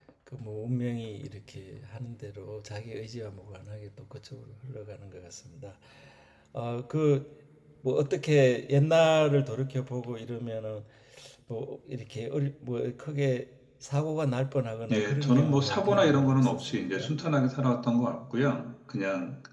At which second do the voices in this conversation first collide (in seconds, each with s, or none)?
14.9 s